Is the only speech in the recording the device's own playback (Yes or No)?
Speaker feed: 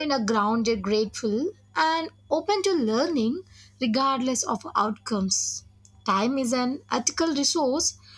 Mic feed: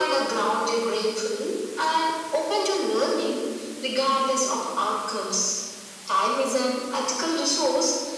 Yes